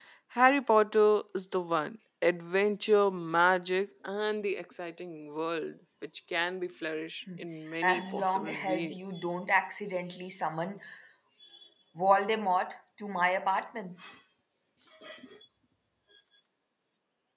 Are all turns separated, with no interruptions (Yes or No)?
No